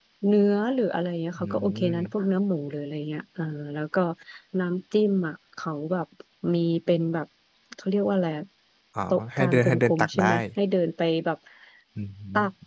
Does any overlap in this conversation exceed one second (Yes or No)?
Yes